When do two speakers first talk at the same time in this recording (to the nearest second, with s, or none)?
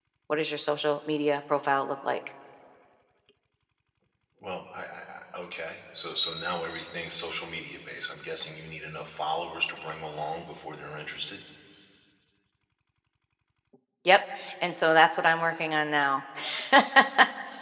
none